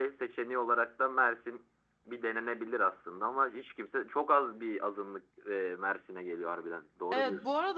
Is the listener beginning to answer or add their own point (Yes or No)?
Yes